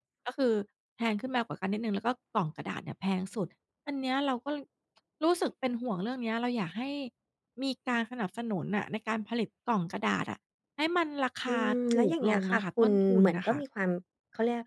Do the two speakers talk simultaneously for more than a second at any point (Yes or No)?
Yes